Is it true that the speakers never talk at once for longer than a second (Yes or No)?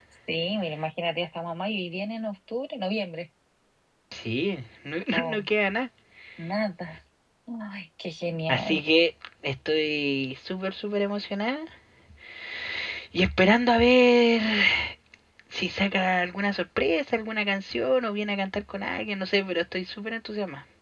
Yes